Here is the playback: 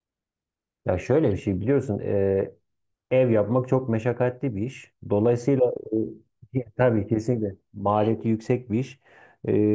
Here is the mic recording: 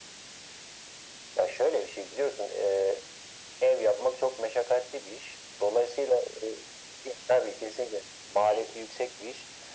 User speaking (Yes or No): No